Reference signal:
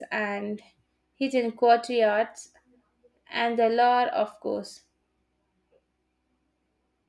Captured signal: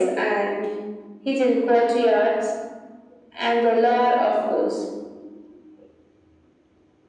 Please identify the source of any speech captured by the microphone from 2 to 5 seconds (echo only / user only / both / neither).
echo only